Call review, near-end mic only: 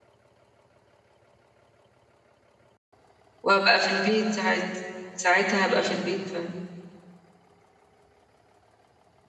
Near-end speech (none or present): present